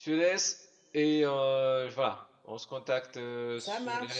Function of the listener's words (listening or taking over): listening